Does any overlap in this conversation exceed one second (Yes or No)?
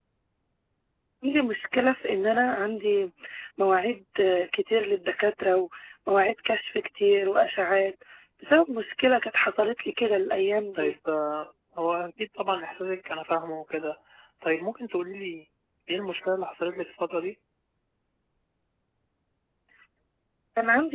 No